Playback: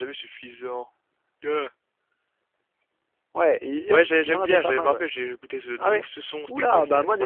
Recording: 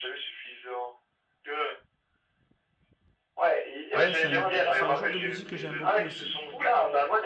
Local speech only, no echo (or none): Ouais, c'est un, c'est un genre de musique que j'aime beaucoup aussi.